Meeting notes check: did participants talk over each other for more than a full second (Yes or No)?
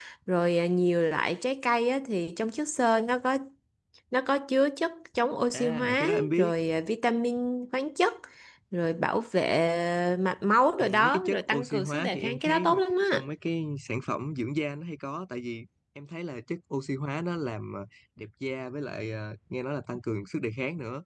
Yes